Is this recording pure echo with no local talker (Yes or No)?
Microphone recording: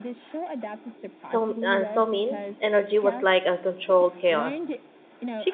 No